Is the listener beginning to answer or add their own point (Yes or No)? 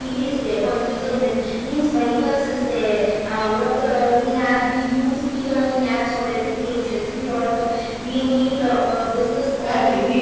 Yes